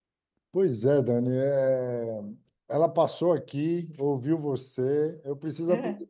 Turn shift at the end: No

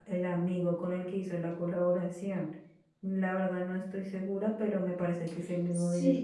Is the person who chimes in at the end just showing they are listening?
No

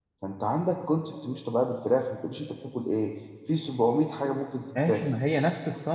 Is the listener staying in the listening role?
No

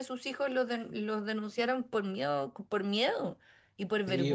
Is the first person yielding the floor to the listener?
Yes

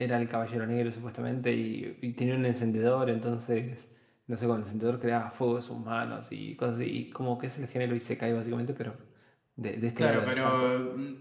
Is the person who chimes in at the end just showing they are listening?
No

